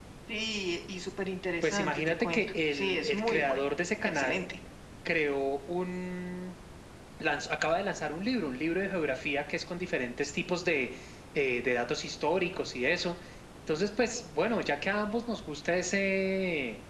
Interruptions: present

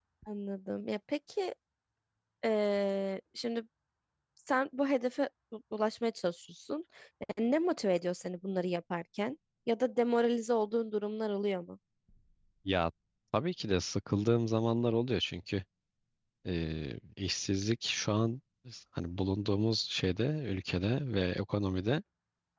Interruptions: none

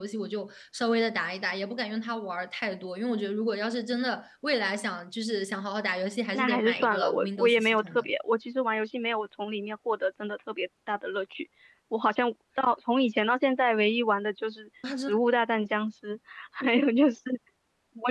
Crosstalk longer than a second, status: present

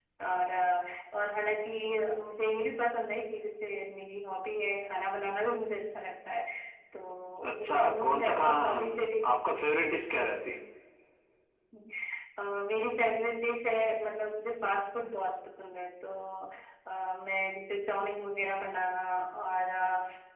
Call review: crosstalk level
present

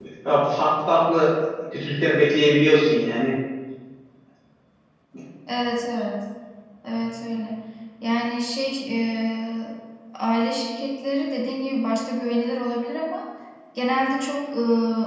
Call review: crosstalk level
none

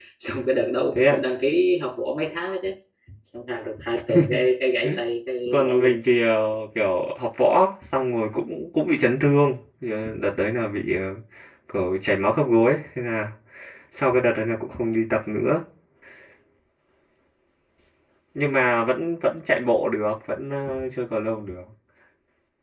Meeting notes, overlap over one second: none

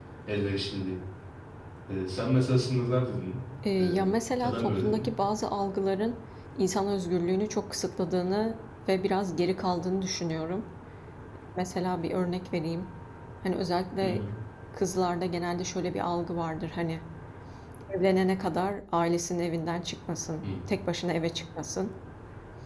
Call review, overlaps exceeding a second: present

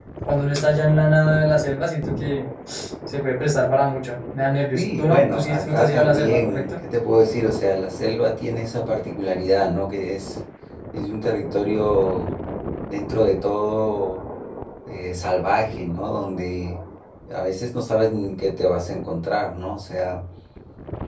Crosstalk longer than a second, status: present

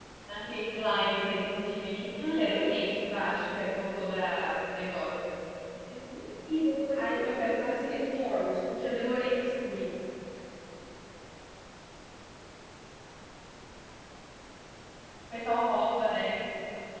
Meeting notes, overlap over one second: present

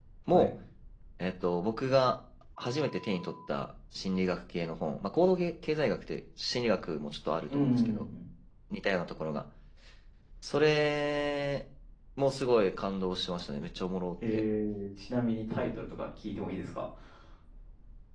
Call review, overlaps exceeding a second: none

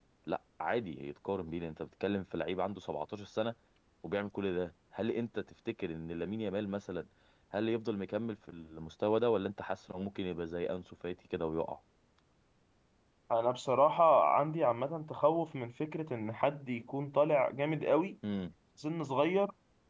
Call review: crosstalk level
none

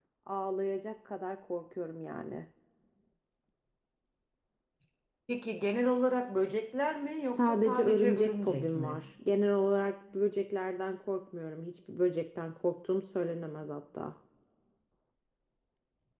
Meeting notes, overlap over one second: present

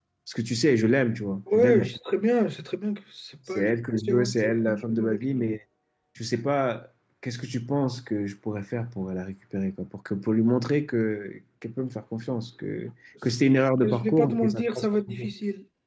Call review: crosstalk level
present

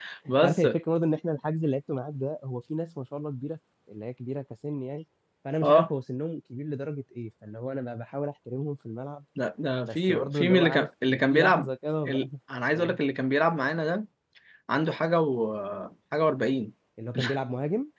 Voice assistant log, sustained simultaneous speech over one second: present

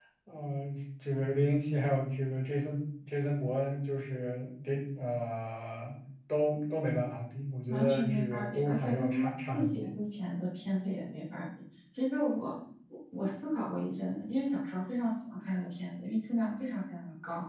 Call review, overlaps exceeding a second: present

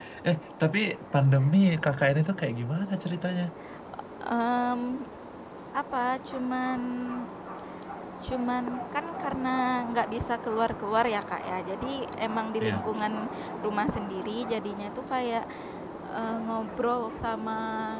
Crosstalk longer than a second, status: none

